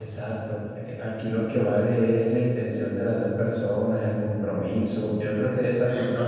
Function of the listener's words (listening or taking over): listening